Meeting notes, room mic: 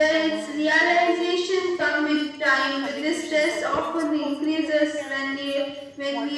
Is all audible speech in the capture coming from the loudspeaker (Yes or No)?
No